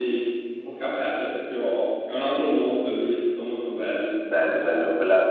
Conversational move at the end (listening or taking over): taking over